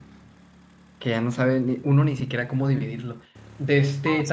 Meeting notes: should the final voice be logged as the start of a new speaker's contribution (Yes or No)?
No